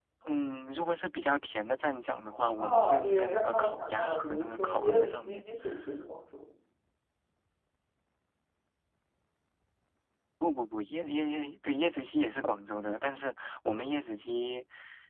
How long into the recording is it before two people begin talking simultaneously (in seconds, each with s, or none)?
2.6 s